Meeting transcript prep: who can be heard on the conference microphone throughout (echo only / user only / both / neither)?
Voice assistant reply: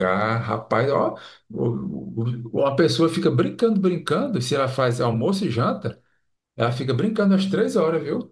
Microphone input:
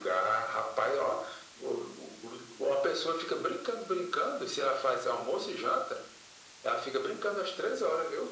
echo only